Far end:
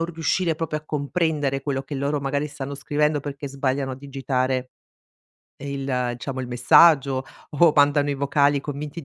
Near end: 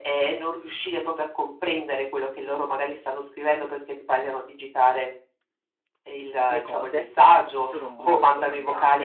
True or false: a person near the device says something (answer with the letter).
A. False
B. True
B